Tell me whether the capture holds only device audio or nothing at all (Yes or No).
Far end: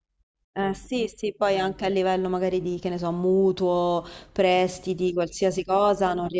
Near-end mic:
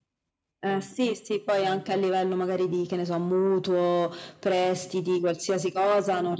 Yes